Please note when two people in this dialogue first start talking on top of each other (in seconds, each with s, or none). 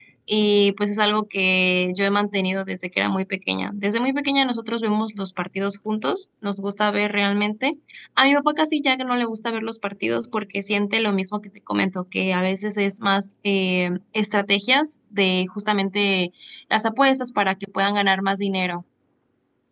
none